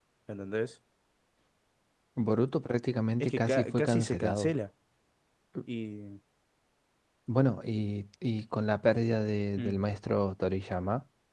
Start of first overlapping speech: 3.2 s

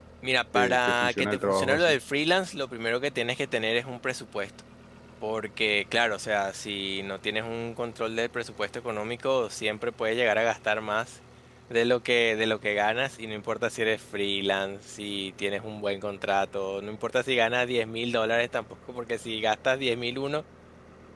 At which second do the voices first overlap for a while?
0.5 s

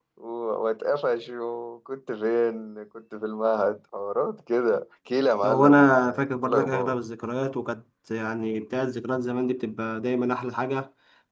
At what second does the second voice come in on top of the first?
5.4 s

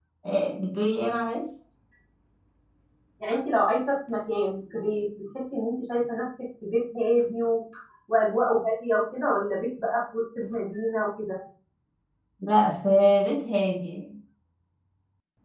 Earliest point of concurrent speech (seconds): none

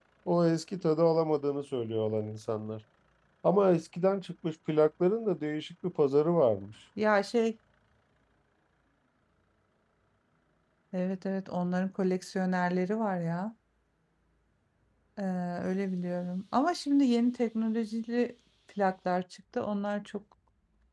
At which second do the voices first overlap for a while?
none

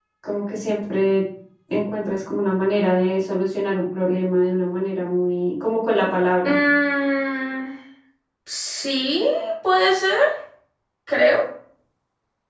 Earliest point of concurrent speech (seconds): none

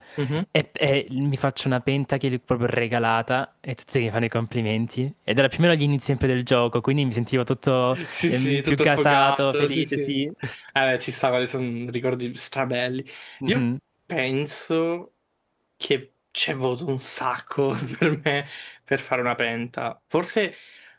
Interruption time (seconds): 7.9 s

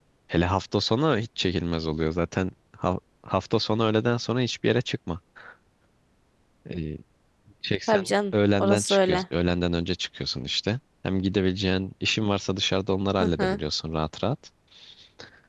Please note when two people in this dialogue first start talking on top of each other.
7.9 s

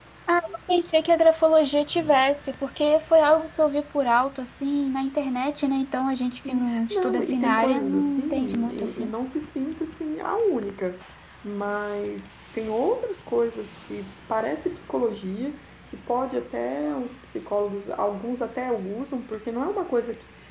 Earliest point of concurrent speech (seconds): 6.5 s

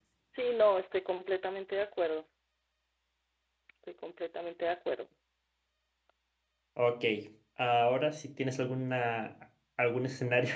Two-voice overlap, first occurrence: none

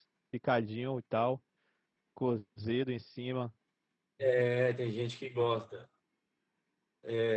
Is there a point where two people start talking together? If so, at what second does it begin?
none

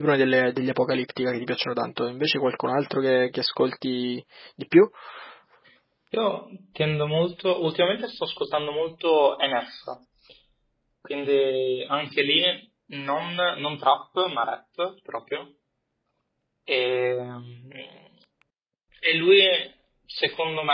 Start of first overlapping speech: none

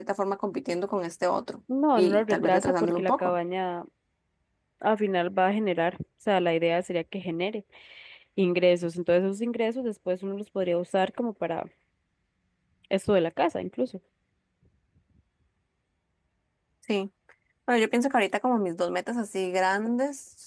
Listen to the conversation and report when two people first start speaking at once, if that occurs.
1.9 s

